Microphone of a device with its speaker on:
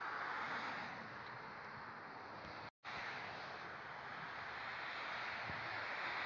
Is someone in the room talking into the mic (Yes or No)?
No